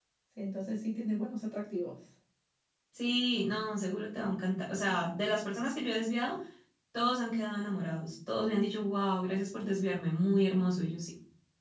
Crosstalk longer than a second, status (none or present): none